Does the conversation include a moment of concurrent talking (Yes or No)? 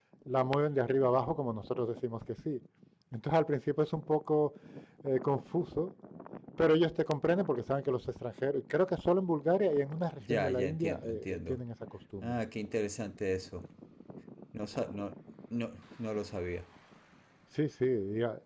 Yes